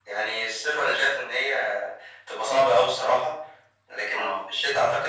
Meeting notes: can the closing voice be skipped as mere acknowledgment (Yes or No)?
Yes